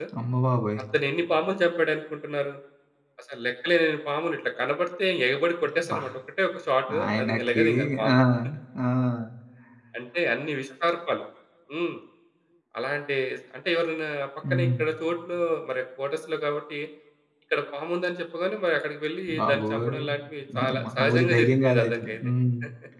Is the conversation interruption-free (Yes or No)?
No